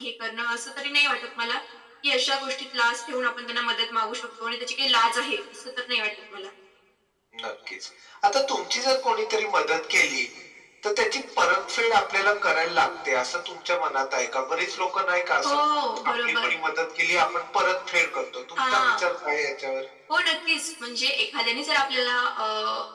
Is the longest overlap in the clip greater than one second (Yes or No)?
No